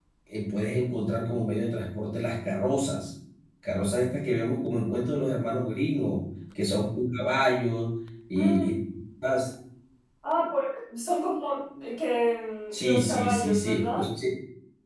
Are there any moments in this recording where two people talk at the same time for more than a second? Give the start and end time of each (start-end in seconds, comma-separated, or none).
12.8-14.1